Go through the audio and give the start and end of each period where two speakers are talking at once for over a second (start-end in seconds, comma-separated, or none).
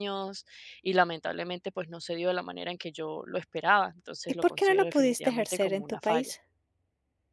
4.4-6.3